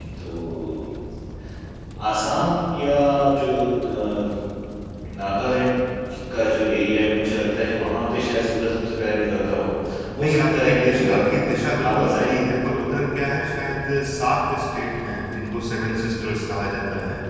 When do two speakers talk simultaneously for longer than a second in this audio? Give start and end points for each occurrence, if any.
10.2-11.4

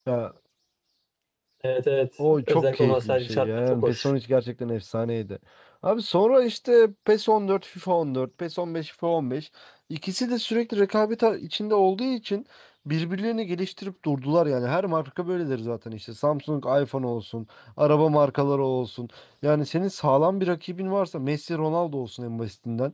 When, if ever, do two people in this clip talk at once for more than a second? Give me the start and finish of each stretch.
2.4-4.1

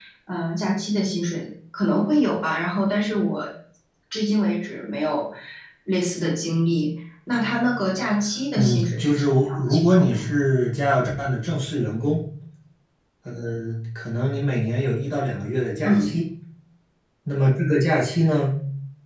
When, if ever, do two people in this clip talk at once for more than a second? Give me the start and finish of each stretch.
8.6-10.2

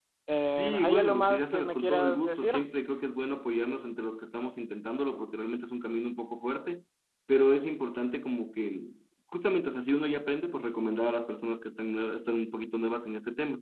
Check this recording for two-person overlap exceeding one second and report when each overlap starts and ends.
0.5-2.5

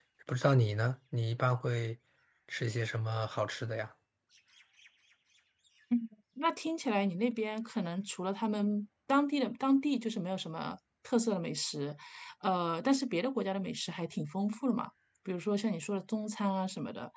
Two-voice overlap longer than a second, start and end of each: none

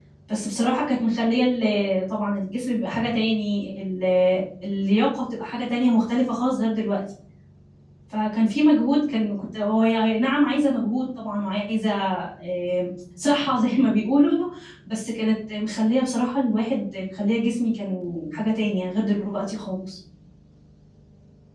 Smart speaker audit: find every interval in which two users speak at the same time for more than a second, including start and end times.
none

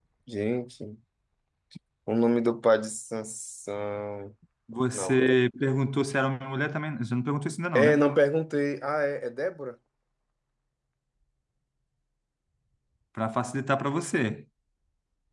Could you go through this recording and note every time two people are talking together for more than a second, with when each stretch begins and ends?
none

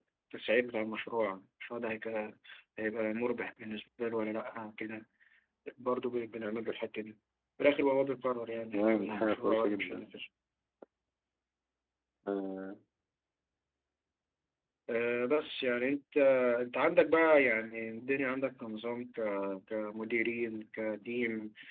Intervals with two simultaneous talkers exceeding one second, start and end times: 8.7-10.0

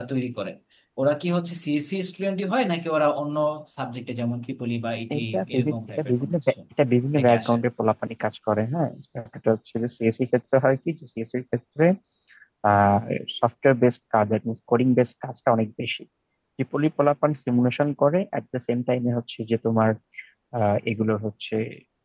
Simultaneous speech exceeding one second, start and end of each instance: 5.2-6.5

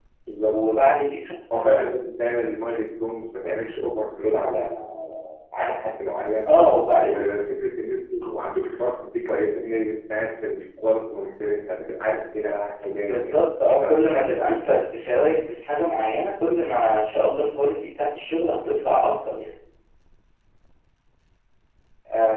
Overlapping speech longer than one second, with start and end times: none

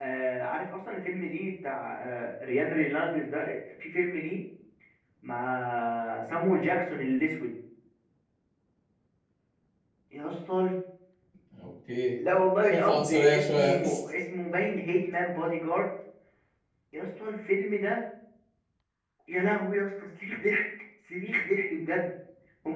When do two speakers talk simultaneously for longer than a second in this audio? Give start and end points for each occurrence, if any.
12.7-14.0

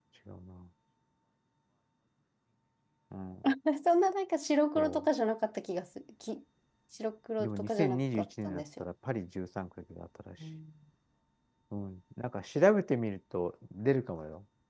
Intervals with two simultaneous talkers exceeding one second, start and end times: 7.4-8.8

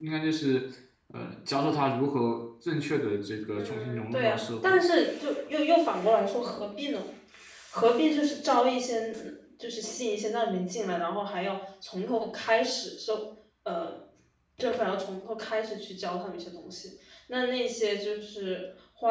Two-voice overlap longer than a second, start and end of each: 3.5-4.8

